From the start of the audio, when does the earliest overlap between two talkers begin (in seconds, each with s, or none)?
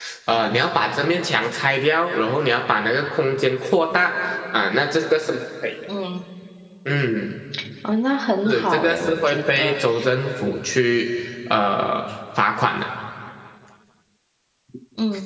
8.4 s